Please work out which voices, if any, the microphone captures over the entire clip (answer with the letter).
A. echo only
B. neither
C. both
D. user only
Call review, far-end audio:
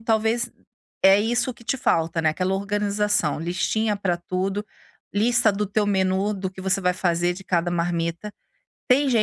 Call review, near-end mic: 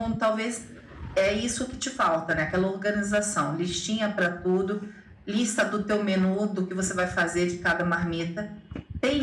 A